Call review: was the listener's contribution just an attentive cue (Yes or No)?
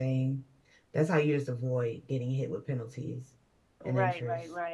No